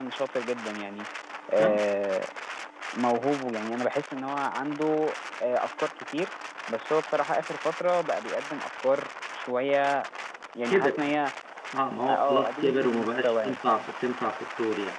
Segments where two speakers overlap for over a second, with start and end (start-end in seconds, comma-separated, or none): 12.1-13.6